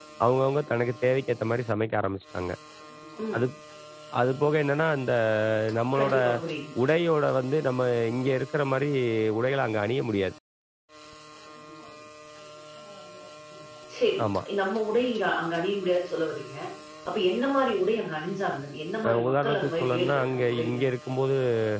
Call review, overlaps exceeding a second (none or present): present